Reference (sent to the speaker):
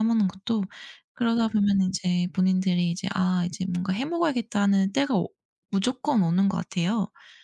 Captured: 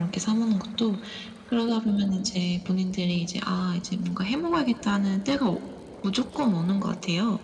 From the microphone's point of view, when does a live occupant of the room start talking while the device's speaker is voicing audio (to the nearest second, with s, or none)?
none